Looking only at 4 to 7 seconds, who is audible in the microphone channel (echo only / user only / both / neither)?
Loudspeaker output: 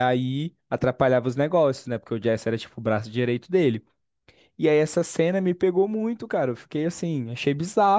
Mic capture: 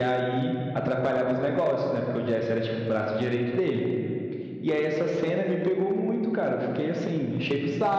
echo only